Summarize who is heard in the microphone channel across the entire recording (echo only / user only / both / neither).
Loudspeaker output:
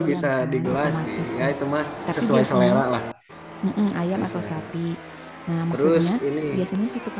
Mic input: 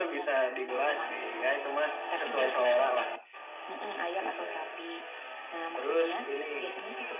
echo only